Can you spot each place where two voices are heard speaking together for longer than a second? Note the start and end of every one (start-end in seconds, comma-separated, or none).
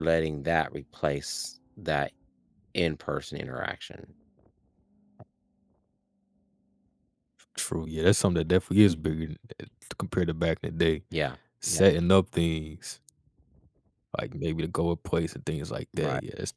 none